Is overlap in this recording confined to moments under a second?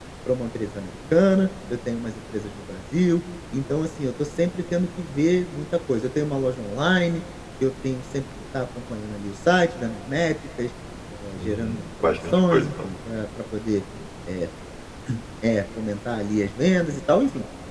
No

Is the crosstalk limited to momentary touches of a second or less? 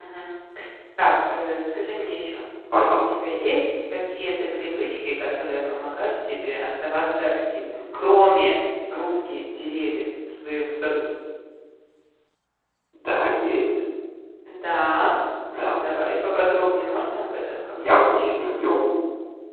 Yes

